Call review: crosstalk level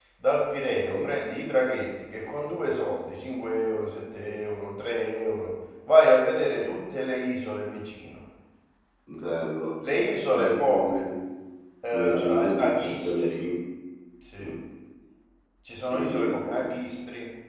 present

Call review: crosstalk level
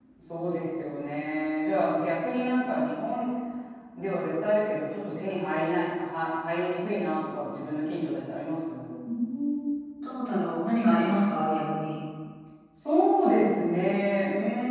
none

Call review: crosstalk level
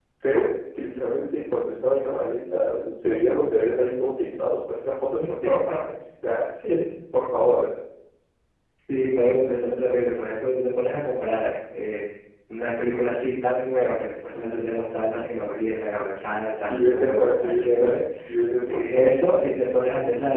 present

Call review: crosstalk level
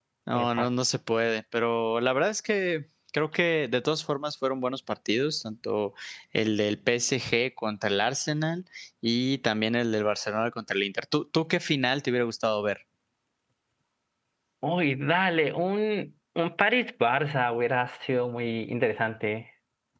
none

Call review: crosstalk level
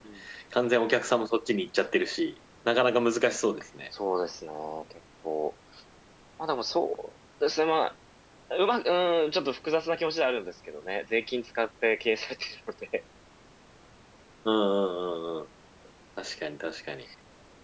none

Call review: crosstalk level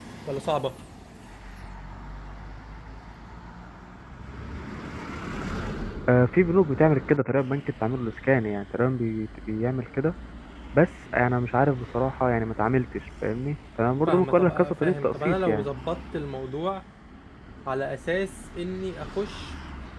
present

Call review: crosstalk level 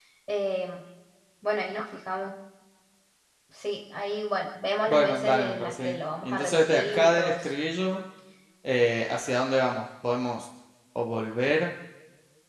present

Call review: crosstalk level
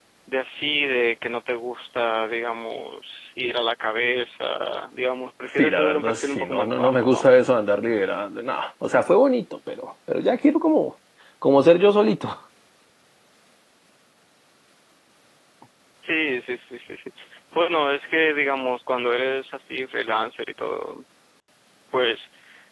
present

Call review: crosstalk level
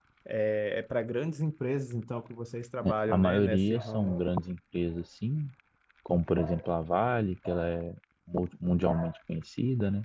present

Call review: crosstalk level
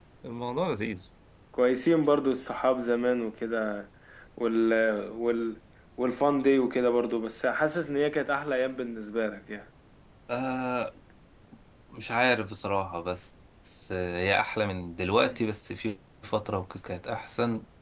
none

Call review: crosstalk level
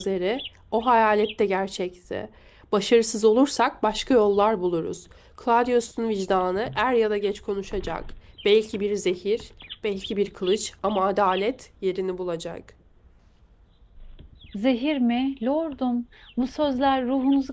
none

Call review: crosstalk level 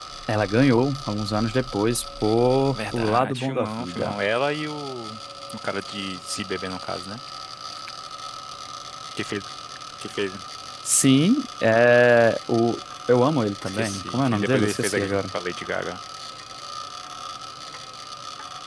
present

